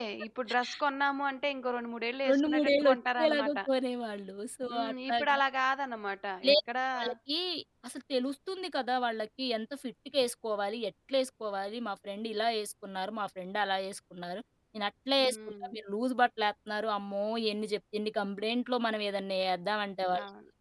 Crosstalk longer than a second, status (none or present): present